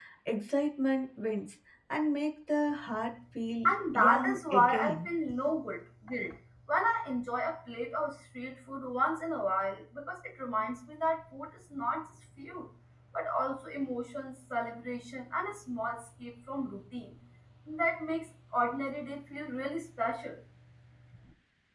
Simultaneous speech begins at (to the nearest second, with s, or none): 4 s